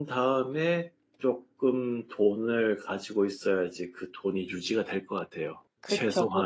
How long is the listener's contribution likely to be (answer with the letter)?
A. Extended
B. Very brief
A